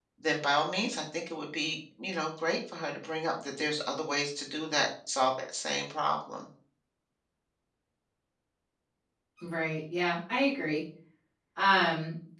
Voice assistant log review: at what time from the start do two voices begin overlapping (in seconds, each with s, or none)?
none